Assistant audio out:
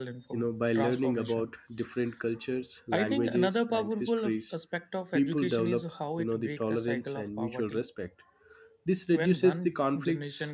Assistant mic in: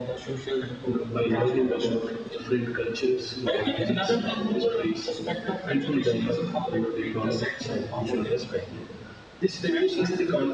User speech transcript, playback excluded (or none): none